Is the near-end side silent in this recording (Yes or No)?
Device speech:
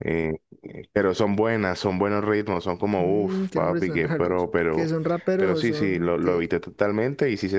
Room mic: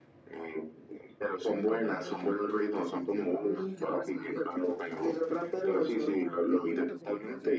No